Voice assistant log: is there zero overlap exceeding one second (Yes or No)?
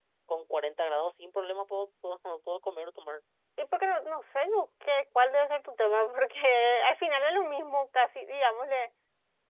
Yes